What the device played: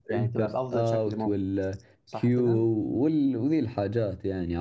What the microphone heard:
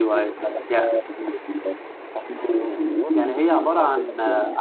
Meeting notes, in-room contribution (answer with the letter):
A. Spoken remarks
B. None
A